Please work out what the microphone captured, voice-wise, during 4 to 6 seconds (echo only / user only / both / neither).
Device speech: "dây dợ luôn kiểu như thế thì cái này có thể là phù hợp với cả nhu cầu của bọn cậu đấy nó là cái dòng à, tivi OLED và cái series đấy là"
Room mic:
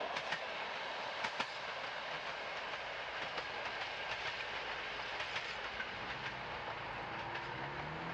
neither